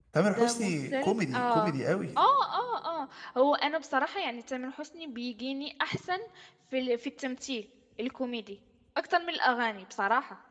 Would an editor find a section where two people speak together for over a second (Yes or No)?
Yes